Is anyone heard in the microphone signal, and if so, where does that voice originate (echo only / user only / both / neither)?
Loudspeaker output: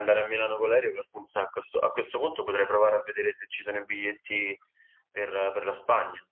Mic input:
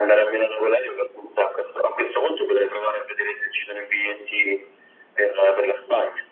echo only